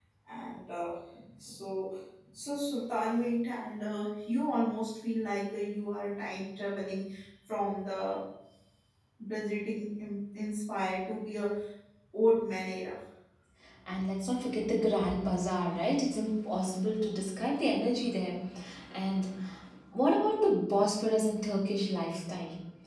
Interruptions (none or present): none